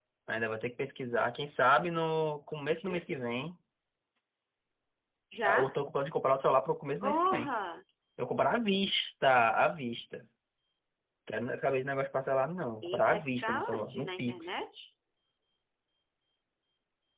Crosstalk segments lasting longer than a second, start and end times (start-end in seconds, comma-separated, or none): 12.8-14.7